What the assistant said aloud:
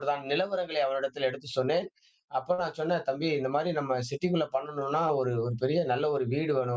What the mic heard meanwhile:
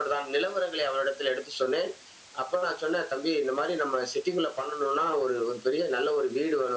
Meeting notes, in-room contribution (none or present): none